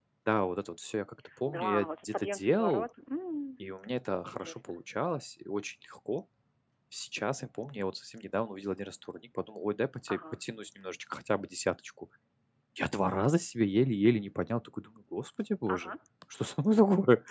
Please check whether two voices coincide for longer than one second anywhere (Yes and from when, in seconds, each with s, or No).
Yes, from 1.5 s